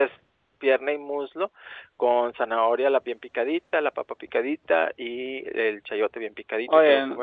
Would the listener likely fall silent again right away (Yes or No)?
Yes